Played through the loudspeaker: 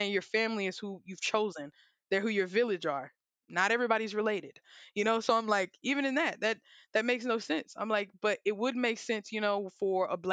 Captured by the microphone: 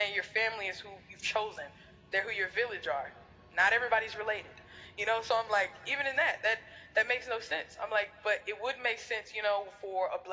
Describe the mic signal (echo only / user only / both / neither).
echo only